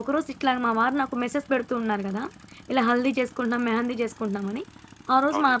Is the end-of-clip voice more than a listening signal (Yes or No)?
No